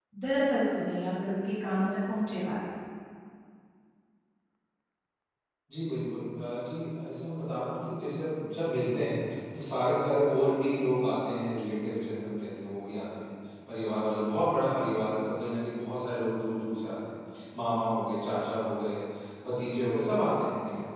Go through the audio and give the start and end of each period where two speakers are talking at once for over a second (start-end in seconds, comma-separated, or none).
none